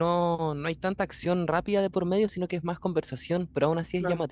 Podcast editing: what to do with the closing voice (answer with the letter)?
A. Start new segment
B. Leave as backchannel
A